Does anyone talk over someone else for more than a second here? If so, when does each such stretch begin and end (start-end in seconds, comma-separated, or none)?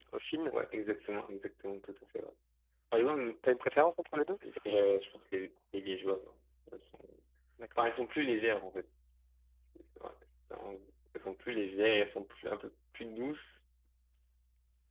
none